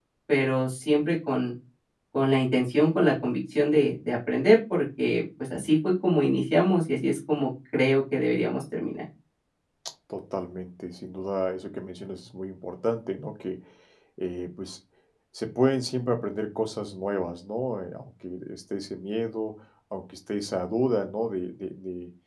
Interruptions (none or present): none